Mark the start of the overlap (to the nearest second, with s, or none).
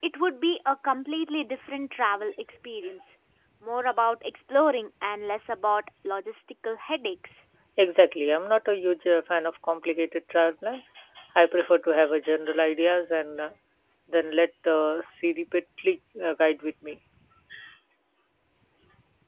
none